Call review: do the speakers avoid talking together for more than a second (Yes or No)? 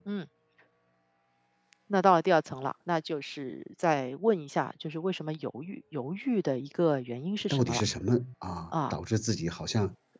Yes